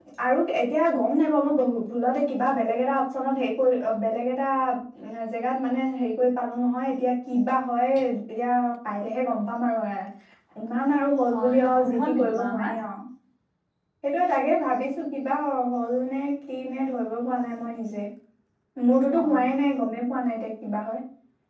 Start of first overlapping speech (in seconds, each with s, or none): 11.3 s